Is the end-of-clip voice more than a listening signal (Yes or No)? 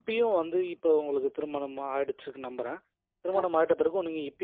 No